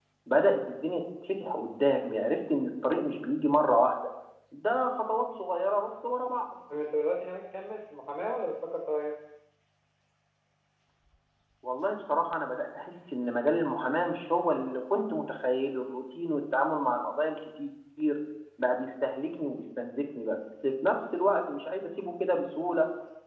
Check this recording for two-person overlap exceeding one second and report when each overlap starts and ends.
none

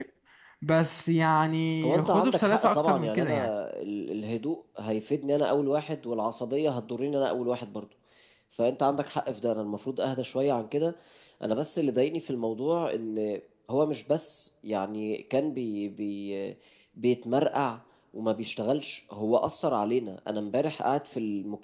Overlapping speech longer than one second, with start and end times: 2.0-3.5

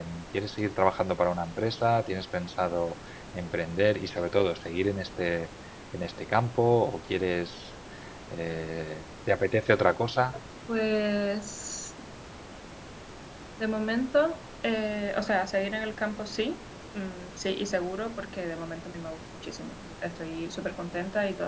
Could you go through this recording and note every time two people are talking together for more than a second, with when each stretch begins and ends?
none

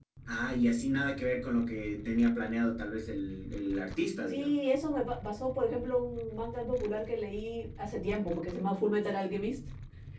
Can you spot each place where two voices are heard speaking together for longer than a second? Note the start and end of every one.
none

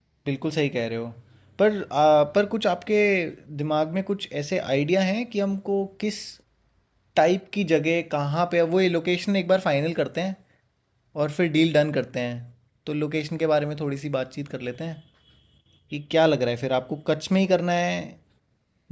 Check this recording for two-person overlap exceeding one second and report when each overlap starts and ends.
none

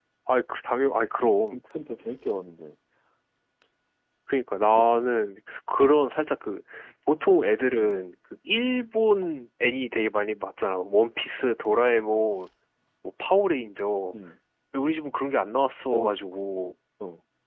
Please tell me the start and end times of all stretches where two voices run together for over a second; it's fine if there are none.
none

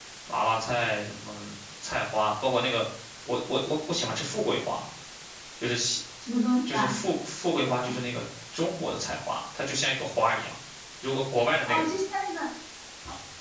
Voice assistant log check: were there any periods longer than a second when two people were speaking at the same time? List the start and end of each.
none

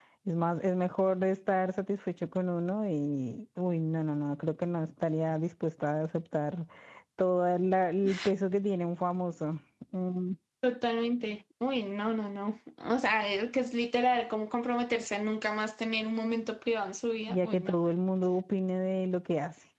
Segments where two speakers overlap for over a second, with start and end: none

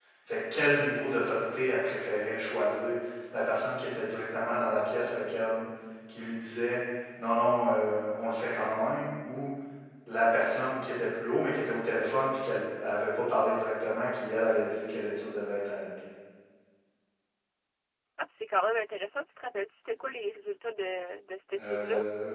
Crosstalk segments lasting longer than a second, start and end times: none

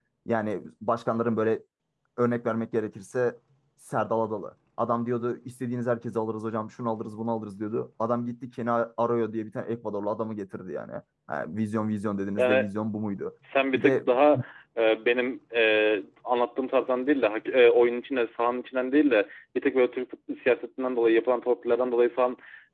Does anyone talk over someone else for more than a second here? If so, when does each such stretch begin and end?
none

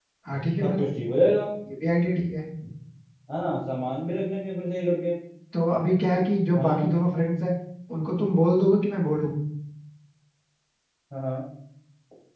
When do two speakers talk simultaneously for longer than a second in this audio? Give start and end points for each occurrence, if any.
none

